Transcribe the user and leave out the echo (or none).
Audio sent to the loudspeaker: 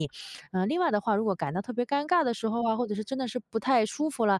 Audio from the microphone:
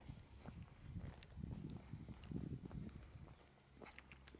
none